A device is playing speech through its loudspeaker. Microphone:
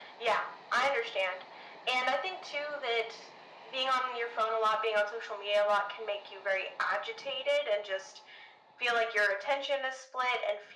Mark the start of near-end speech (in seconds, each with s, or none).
none